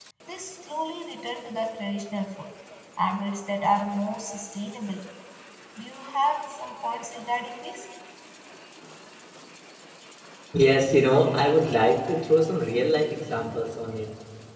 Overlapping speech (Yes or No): No